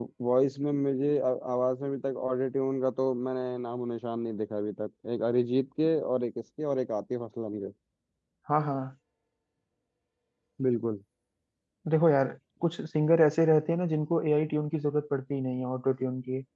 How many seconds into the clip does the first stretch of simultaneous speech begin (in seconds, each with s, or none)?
none